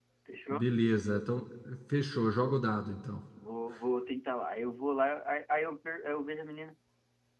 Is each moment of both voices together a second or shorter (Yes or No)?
Yes